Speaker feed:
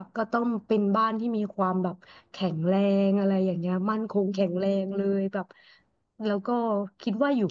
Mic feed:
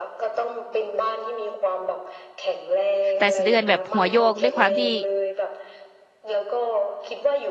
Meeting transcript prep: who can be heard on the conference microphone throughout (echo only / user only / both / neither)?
both